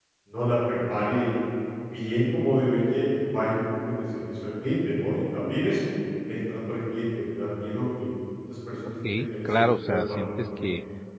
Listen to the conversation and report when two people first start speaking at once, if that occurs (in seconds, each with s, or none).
8.8 s